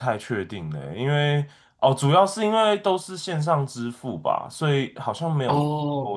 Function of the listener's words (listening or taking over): listening